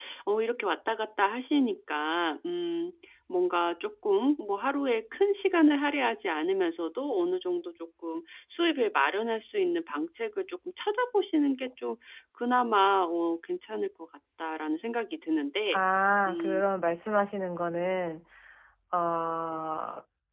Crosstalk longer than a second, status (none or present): none